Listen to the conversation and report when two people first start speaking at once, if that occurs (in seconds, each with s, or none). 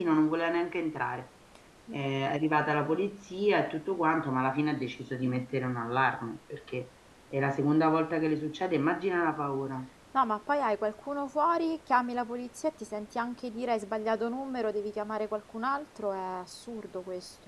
none